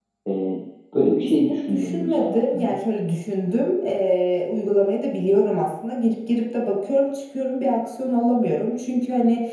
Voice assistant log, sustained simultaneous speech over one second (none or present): present